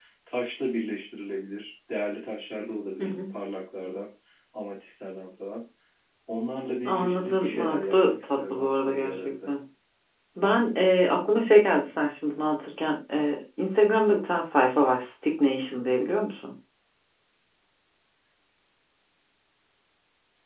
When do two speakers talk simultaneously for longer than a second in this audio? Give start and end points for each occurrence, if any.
6.8-9.5

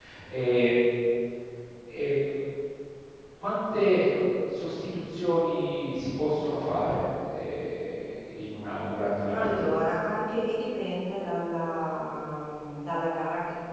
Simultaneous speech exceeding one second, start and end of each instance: none

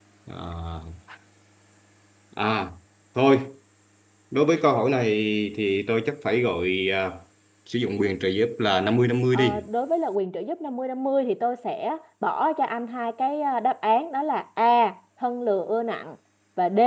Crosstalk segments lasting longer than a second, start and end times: none

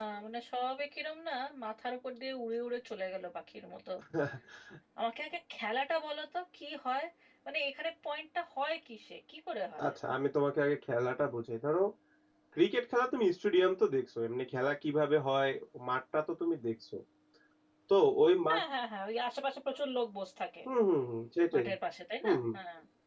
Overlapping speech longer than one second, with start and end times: none

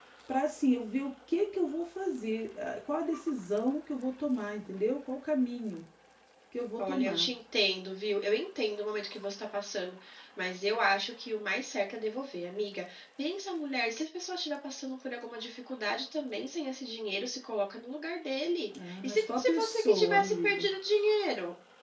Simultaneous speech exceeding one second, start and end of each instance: 19.0-20.6

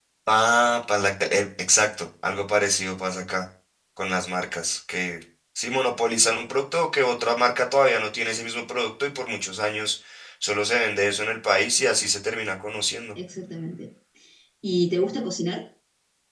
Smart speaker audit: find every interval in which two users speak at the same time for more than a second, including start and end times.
none

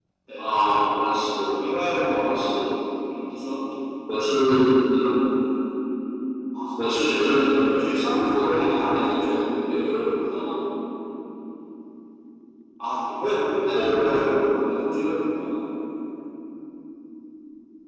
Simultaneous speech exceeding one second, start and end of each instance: none

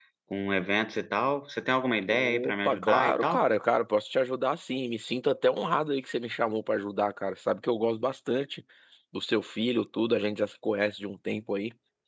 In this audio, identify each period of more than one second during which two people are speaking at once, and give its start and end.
2.1-3.5

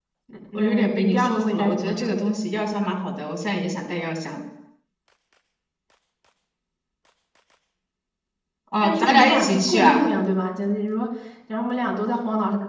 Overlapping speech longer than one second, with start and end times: 0.6-2.2, 8.8-10.0

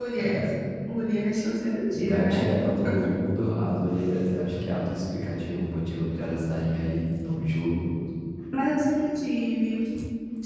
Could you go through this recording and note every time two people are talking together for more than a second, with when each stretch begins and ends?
none

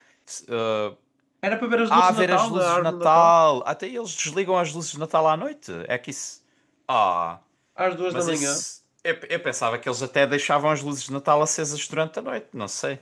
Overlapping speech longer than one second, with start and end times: 1.9-3.3

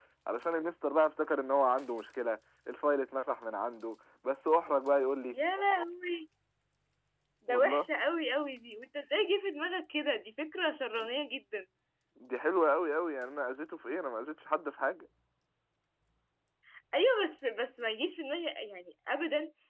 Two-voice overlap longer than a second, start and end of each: none

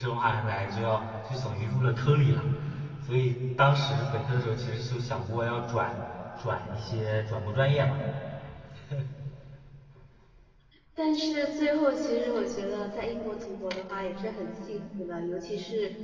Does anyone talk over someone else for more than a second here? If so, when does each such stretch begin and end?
none

